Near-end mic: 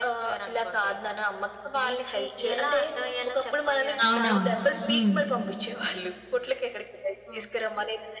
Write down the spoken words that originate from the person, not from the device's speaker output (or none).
అవునవును. హ్మ్.